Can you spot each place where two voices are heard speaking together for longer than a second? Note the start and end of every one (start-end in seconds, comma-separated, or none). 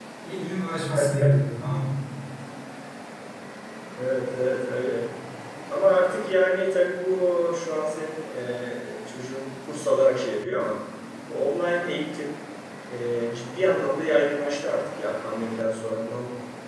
none